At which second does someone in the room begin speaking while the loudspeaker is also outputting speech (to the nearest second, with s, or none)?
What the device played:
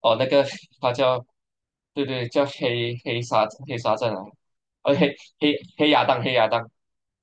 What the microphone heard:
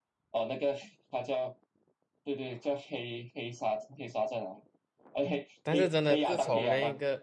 6 s